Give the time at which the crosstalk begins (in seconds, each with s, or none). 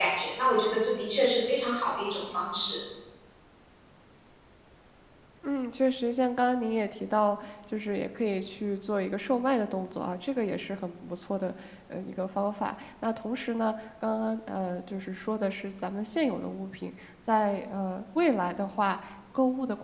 none